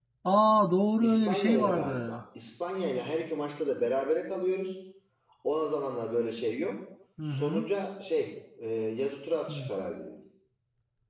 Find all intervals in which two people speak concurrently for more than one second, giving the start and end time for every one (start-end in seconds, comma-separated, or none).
1.0-2.2